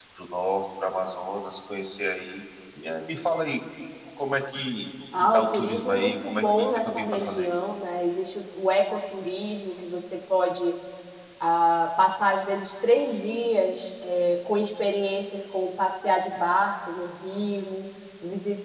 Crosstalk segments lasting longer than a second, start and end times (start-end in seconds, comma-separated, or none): 5.3-7.5